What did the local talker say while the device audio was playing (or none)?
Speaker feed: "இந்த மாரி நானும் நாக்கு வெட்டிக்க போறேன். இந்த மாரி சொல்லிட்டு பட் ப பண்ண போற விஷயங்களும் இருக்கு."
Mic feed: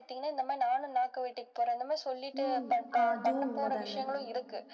ம். அ அதுவும் உண்மதாங்க.